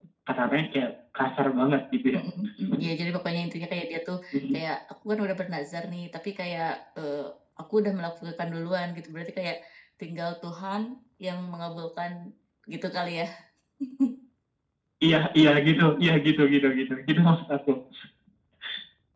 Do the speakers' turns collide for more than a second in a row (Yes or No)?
No